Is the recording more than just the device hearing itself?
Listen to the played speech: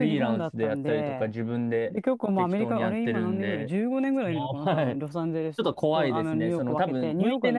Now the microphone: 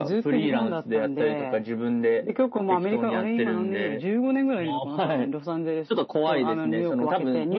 No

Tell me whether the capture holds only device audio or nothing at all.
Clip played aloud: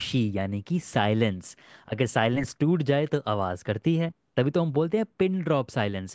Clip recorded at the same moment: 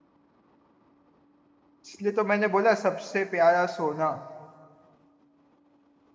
No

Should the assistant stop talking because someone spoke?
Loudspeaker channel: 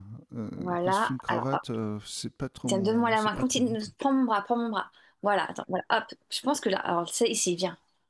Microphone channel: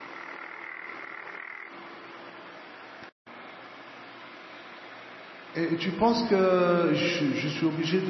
Yes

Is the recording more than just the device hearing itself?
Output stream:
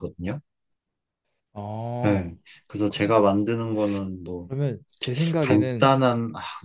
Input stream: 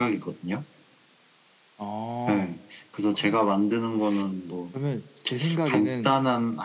No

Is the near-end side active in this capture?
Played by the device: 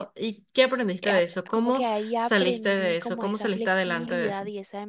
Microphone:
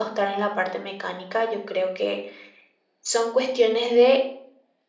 Yes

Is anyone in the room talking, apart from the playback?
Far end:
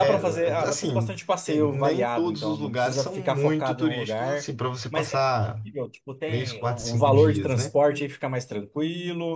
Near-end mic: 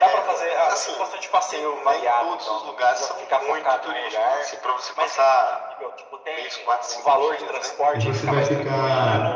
Yes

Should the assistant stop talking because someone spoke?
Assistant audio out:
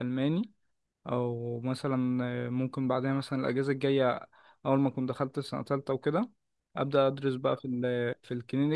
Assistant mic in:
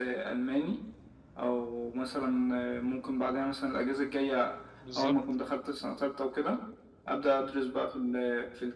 Yes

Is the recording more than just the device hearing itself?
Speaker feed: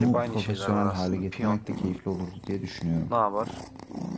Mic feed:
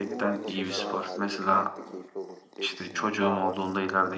Yes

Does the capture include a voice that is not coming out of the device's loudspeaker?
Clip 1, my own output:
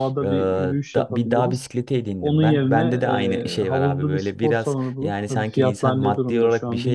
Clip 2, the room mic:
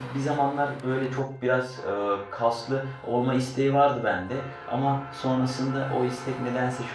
Yes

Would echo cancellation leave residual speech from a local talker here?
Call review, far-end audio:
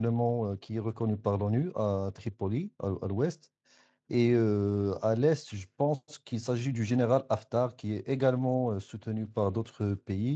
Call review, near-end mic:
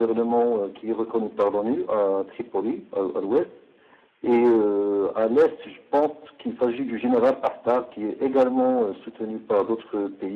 No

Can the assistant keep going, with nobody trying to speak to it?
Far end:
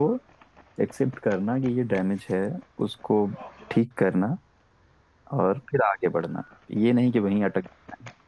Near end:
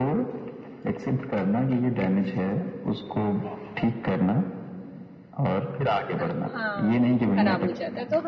No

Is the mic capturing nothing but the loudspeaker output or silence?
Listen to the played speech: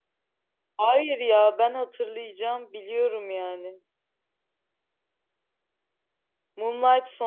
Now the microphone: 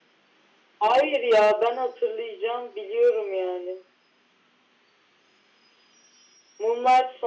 Yes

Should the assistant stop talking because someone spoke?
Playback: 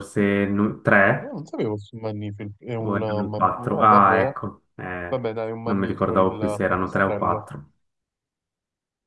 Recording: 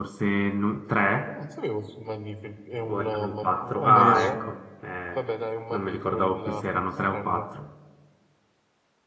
Yes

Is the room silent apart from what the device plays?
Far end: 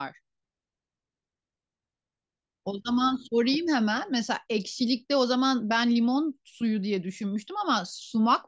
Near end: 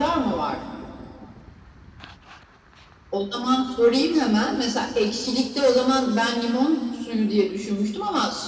Yes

